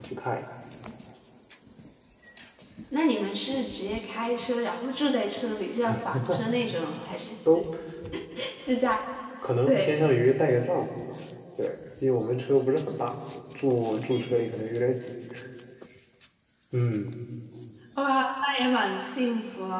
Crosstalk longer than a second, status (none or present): none